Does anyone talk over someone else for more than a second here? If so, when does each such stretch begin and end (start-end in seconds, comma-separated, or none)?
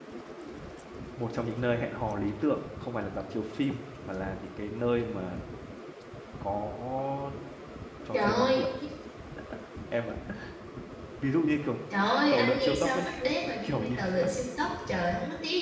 12.3-14.3